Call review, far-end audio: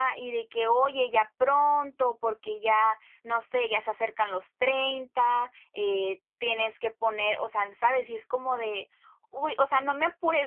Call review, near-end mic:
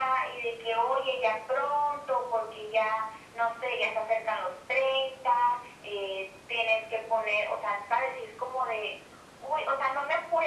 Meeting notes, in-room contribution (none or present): none